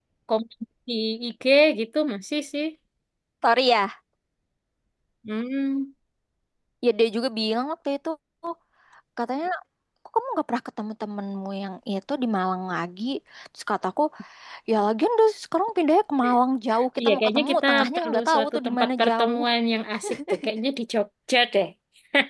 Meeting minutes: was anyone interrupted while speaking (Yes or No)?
Yes